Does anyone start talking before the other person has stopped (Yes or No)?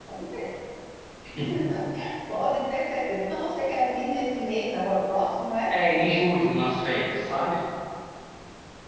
No